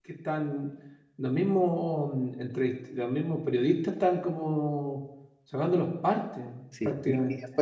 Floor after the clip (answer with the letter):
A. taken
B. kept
A